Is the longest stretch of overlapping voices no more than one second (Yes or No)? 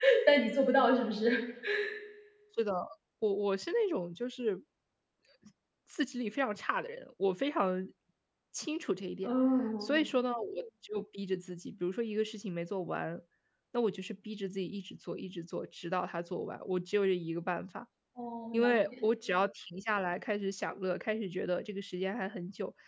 Yes